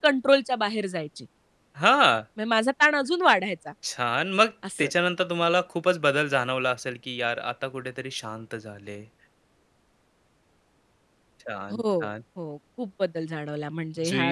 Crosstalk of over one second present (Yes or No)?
No